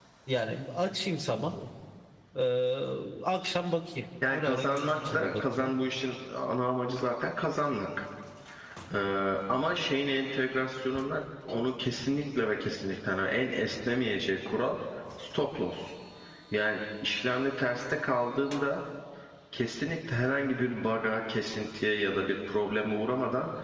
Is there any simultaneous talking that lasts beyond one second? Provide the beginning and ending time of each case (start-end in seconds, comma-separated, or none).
4.3-5.7